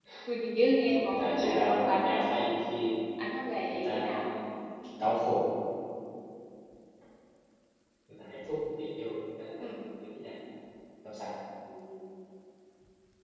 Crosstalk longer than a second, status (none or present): present